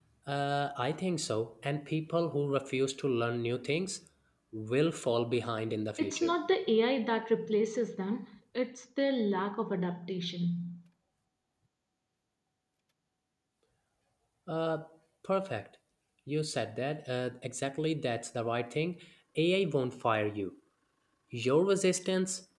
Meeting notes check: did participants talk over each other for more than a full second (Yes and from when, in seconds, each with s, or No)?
No